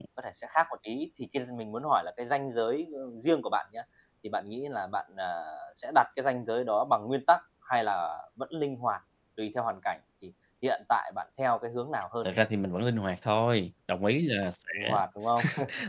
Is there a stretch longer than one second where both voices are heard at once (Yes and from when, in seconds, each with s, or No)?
No